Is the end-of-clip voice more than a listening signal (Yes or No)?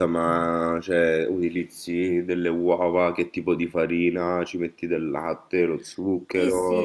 Yes